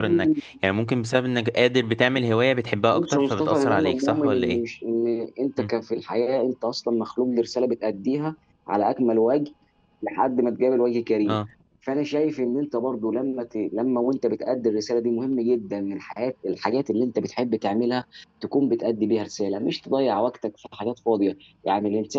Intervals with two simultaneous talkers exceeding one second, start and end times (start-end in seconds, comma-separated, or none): 2.9-4.6